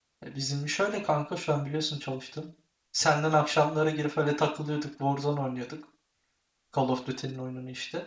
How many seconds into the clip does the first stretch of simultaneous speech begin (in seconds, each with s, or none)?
none